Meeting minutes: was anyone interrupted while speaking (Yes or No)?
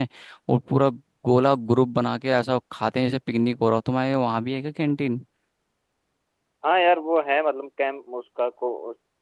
No